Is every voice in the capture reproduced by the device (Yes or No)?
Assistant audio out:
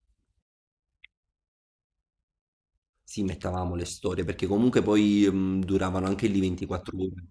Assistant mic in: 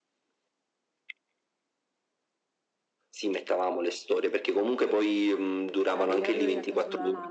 No